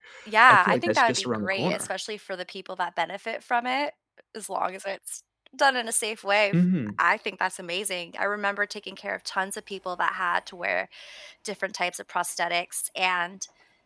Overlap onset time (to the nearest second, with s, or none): 1 s